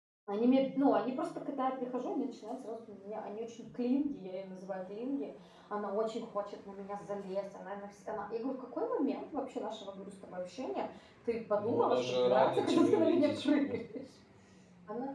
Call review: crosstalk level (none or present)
present